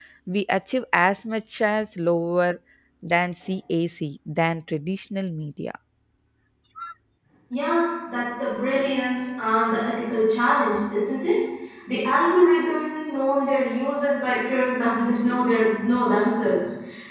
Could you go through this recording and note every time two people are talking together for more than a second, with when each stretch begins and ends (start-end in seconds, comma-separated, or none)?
none